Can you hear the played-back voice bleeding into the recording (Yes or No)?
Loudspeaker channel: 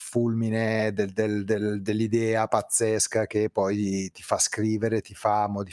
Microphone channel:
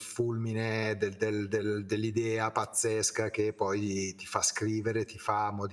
Yes